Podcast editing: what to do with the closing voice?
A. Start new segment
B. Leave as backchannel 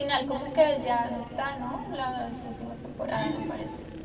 A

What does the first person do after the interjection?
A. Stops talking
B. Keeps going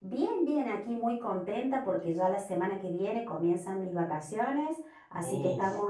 B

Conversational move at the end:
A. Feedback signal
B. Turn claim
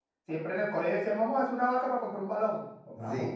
A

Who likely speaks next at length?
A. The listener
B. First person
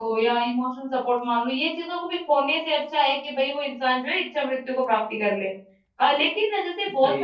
B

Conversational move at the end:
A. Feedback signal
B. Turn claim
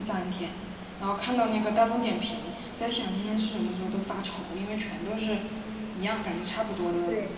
B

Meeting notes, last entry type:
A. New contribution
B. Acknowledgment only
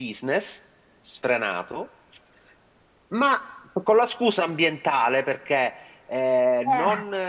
B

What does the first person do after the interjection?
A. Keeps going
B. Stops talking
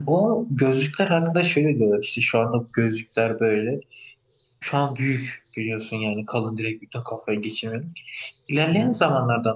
A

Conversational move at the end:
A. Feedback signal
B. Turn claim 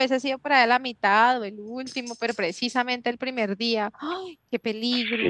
B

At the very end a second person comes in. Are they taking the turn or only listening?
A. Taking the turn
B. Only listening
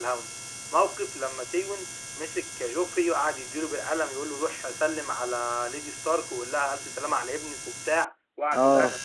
B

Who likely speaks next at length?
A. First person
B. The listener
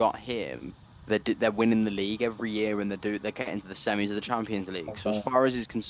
A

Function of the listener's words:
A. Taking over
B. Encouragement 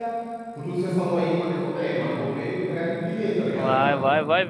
A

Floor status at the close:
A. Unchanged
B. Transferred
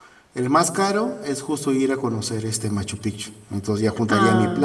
A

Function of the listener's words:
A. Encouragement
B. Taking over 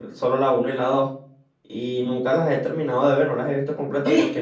A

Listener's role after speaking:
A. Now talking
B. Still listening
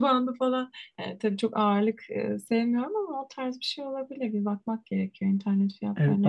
A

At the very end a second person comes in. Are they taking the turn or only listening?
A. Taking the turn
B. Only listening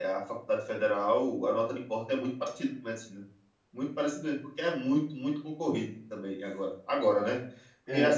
B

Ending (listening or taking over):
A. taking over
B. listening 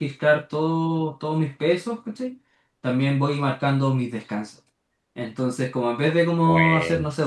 B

